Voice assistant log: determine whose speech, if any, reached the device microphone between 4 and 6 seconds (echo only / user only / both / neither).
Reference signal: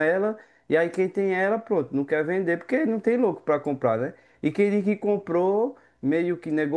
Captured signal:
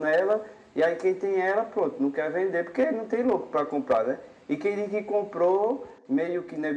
echo only